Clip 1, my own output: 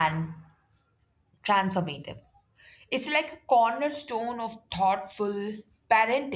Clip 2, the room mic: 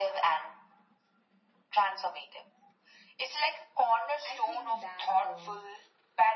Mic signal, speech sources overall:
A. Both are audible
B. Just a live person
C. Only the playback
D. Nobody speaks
A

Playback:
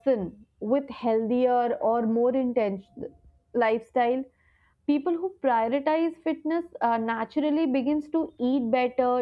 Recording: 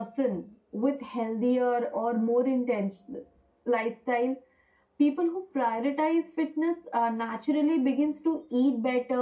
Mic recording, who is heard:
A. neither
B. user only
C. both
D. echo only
D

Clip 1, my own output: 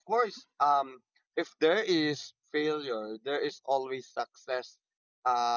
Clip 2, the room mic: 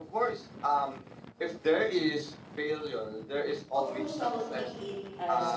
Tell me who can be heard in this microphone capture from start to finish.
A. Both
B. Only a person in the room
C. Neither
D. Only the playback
A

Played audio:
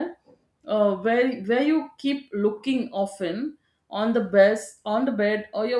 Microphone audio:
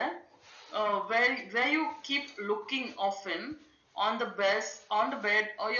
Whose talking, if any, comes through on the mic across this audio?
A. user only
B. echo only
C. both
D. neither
B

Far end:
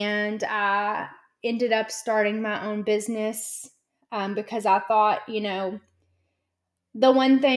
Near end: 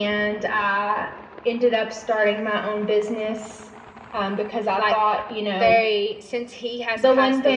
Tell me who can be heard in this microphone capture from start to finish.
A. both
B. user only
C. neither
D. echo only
A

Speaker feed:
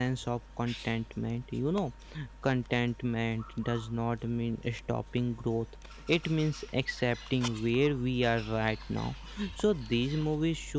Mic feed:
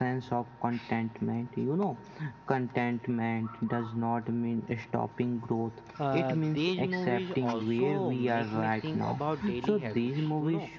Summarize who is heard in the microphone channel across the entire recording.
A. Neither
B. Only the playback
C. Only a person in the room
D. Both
D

